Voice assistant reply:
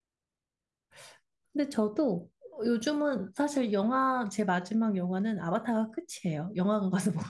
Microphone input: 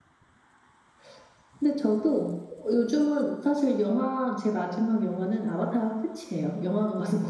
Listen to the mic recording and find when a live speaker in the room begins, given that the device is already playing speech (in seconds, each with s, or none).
none